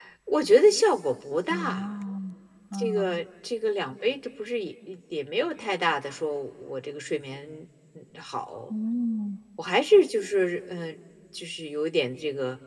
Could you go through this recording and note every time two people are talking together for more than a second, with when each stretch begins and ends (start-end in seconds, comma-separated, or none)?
none